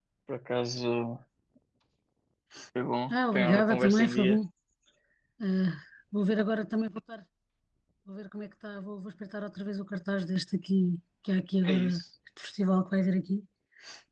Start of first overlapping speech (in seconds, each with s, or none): 3.1 s